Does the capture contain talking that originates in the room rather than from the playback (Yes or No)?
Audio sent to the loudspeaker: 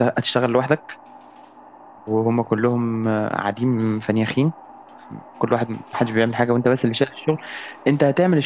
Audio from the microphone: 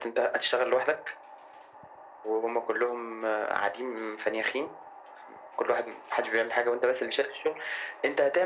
No